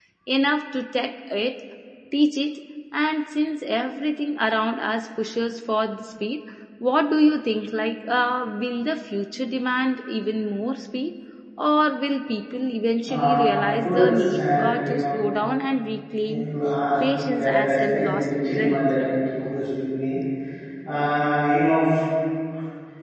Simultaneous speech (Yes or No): Yes